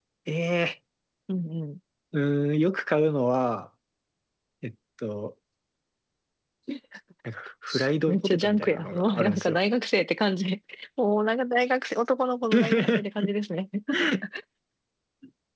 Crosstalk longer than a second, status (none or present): present